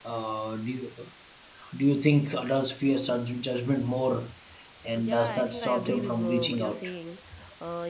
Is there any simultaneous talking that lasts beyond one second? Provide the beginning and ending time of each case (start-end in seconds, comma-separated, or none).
5.0-6.9